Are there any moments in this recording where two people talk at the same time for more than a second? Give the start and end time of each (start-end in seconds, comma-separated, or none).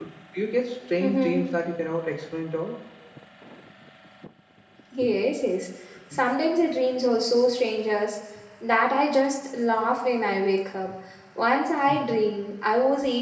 none